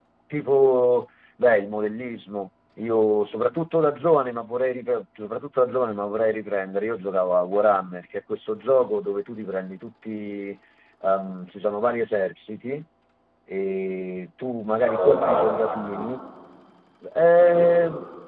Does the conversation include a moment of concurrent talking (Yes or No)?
Yes